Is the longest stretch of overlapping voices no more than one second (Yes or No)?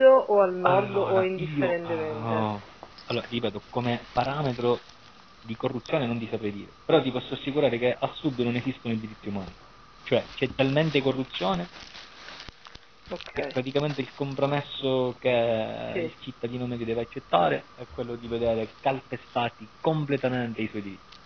No